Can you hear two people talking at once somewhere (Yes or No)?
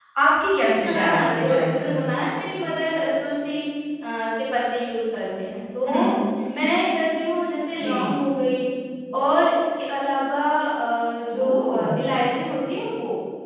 Yes